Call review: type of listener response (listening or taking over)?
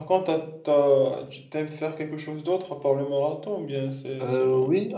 taking over